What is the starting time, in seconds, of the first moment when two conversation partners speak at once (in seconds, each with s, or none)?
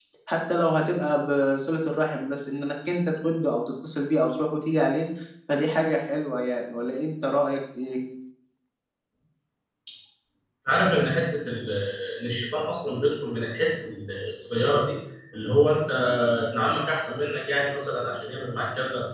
none